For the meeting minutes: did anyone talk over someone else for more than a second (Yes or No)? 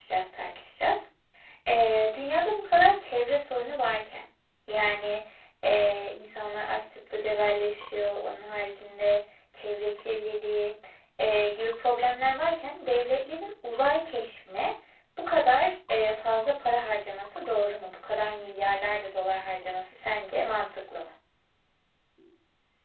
No